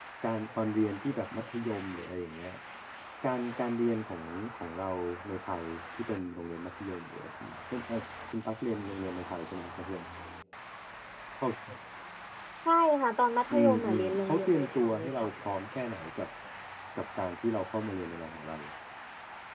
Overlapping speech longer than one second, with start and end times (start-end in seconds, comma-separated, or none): 13.5-15.3